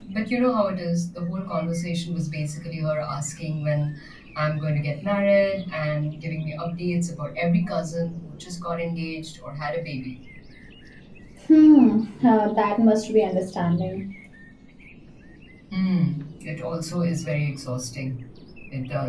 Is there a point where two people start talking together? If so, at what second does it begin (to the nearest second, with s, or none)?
none